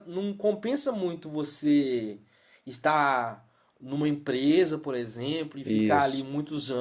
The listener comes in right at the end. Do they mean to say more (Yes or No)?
No